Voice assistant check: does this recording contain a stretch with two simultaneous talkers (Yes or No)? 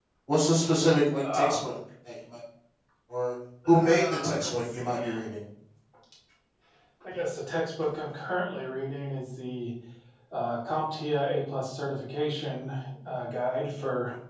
Yes